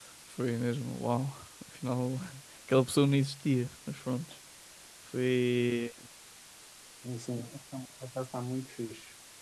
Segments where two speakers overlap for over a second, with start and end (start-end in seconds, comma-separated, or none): none